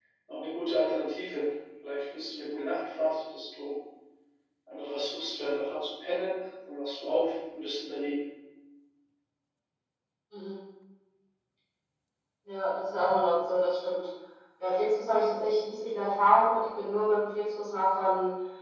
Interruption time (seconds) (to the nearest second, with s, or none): none